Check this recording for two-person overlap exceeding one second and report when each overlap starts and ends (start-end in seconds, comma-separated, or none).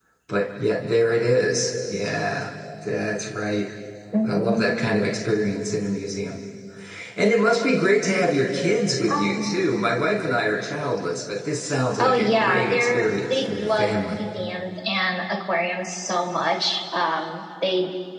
12.0-14.2